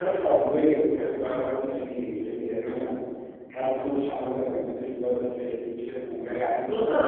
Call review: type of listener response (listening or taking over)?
taking over